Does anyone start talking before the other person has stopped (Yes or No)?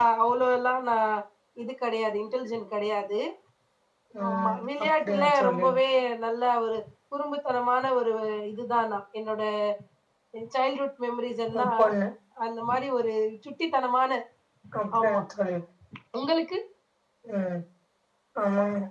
Yes